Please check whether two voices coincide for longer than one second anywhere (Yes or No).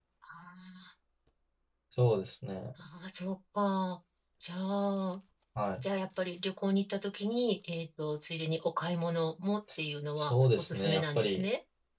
Yes